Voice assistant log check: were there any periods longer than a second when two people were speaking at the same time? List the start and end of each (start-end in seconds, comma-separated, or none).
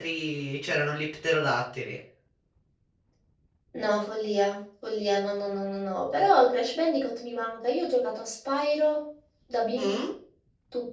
none